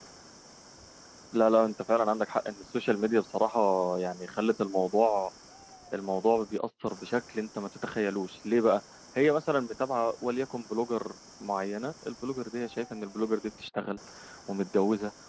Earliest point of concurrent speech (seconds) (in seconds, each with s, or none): none